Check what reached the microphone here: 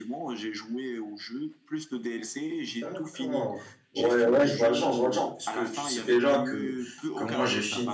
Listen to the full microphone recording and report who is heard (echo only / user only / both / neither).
both